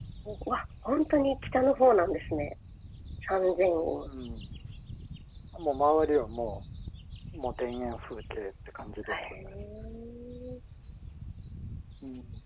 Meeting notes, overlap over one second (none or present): none